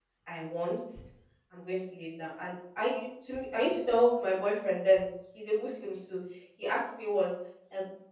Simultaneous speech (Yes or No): No